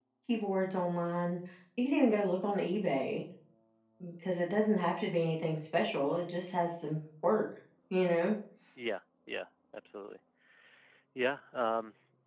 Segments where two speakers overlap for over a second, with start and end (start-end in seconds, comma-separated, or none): none